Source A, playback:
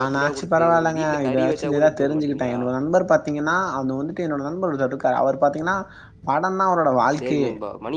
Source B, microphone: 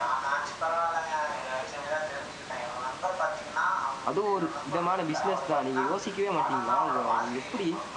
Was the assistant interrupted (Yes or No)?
Yes